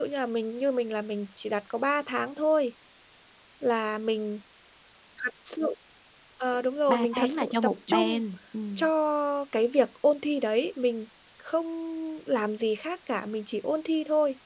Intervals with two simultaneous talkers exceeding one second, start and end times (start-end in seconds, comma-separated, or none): 6.9-8.2